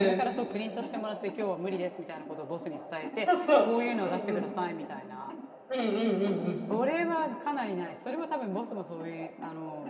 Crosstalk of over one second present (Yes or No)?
No